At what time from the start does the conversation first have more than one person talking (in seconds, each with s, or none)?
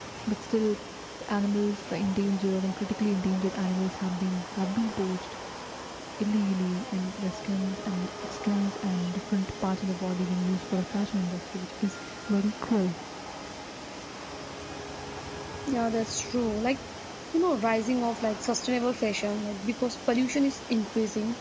none